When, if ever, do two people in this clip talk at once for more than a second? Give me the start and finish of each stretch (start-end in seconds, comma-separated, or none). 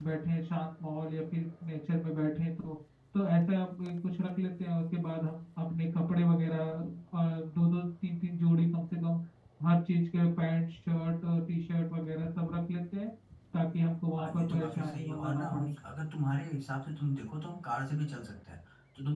14.2-15.7